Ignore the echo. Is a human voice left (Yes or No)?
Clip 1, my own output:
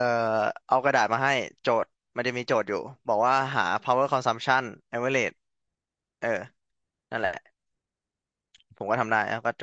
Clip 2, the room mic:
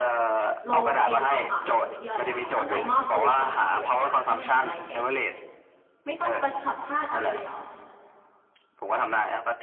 Yes